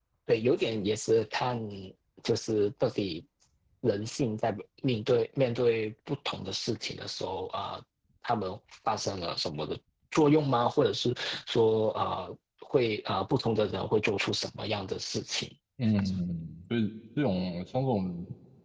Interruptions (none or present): none